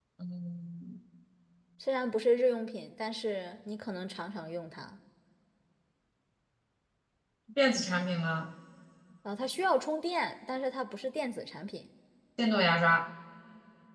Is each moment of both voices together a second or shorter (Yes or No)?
Yes